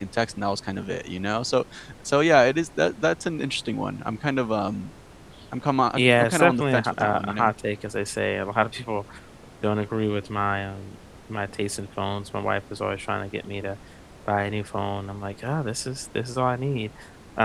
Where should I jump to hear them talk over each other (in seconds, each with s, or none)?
6.0 s